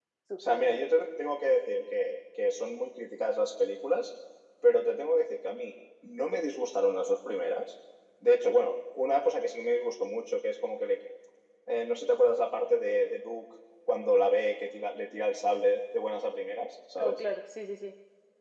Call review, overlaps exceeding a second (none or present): none